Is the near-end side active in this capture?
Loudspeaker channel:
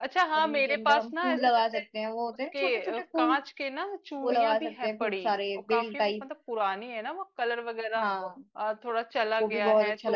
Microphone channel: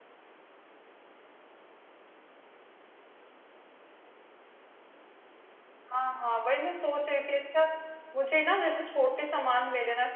Yes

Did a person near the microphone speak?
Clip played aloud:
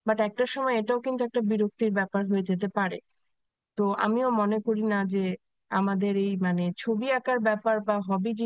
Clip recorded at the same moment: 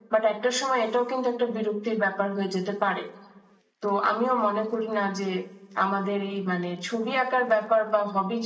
No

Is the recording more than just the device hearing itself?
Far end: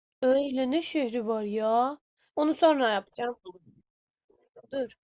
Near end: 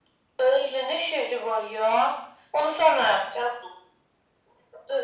No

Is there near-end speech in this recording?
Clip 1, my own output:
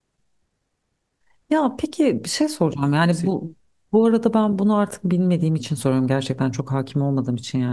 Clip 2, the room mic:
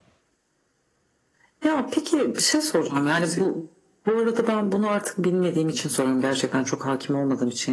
No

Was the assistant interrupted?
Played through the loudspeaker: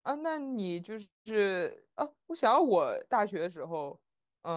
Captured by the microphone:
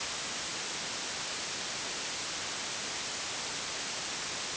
No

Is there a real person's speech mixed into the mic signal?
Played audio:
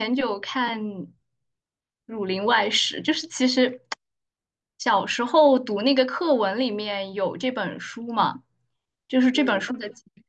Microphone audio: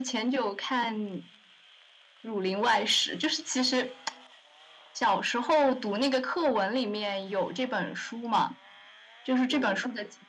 No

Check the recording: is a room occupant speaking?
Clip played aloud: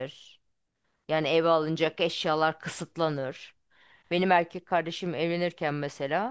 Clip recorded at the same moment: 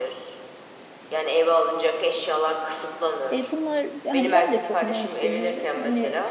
Yes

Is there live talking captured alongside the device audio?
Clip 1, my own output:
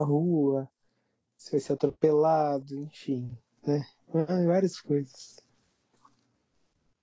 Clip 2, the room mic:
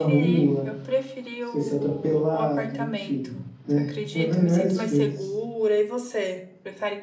Yes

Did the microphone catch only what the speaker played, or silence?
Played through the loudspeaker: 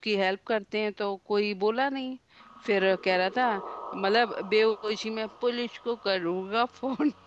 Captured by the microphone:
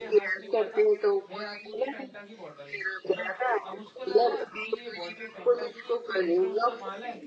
No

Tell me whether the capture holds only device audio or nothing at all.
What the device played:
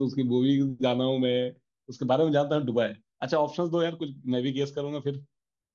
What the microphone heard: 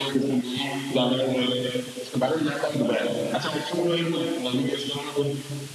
Yes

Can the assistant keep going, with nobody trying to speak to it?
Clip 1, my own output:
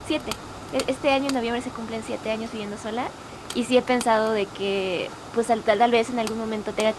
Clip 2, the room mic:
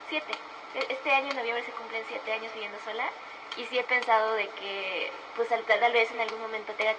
Yes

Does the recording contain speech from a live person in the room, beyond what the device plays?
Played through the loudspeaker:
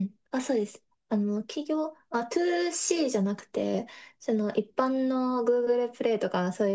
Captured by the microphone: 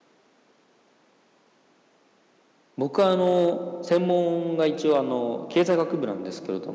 Yes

